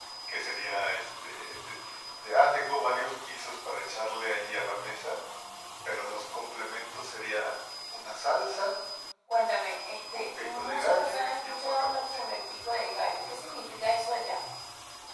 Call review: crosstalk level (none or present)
present